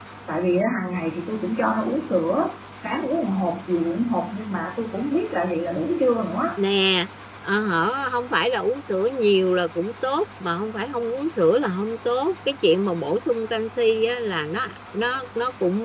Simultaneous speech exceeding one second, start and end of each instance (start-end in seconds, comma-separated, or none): none